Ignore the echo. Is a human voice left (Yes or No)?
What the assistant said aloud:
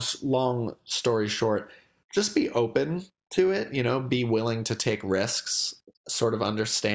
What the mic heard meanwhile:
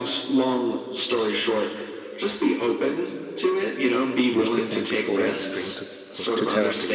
Yes